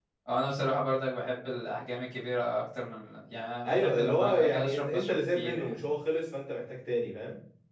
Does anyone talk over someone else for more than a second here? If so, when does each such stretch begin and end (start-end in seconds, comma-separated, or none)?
3.6-5.7